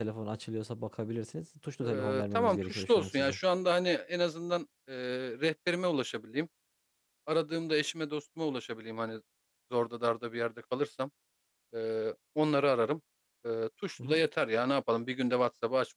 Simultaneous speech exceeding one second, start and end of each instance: 1.8-3.4

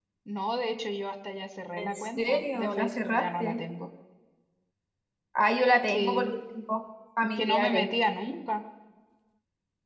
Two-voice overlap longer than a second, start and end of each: 1.8-3.6

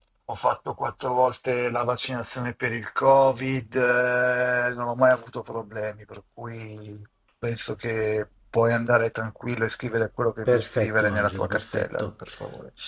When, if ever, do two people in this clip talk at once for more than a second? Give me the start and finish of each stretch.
10.4-12.1

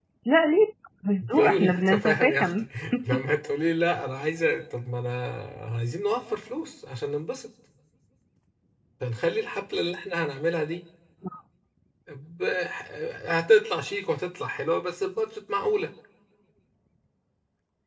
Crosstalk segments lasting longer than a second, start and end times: 1.3-2.5

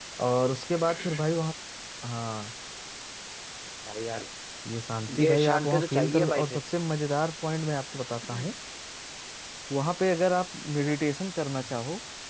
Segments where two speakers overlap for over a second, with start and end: 5.2-6.6

